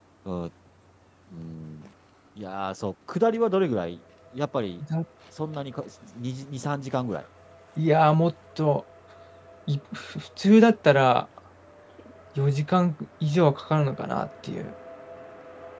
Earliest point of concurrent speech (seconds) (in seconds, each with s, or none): none